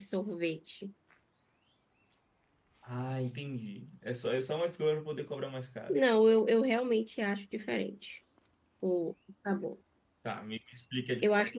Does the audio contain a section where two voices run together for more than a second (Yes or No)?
No